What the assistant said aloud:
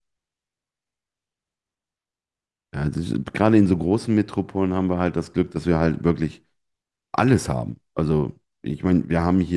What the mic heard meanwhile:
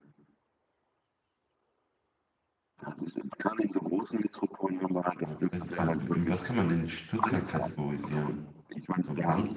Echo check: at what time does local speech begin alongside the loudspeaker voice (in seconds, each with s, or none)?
5.2 s